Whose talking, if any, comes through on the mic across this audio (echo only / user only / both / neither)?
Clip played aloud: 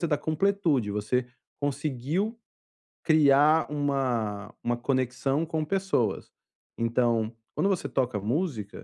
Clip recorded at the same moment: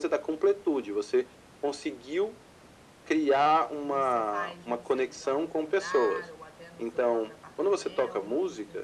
both